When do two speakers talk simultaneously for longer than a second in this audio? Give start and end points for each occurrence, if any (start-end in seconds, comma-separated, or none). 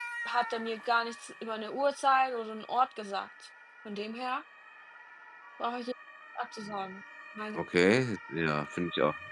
none